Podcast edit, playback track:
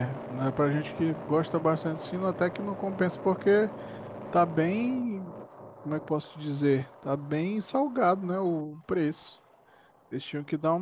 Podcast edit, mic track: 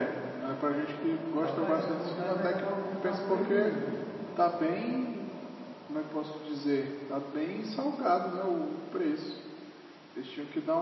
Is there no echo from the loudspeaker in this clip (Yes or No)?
No